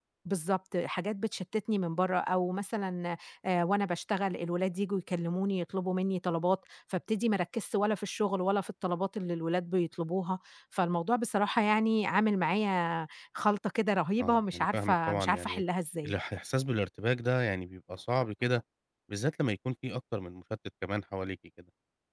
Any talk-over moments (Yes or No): Yes